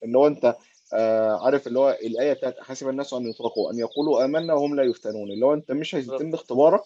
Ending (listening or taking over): listening